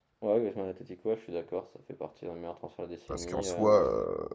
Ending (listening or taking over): taking over